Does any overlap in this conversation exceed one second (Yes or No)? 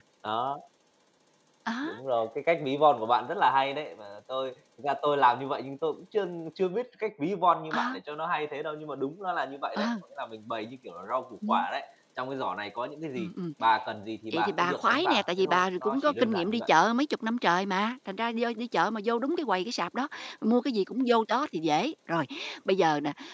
Yes